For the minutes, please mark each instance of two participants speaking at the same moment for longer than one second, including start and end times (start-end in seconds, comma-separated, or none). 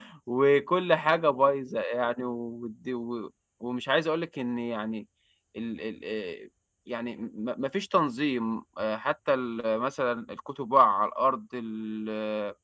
none